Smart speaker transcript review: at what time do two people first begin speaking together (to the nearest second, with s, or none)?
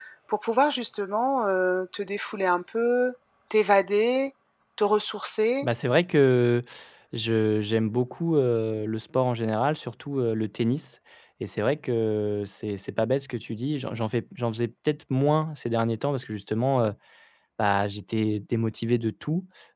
none